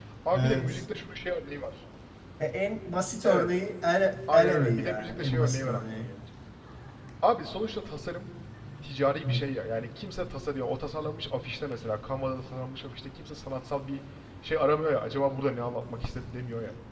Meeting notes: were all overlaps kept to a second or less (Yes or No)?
No